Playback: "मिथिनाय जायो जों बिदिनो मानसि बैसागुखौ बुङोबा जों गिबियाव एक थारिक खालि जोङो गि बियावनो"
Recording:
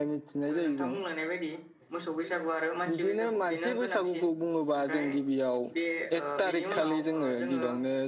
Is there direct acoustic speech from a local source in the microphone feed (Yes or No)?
Yes